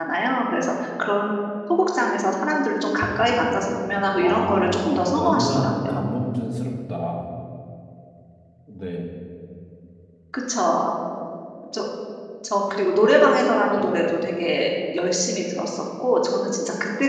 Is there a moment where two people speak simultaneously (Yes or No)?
Yes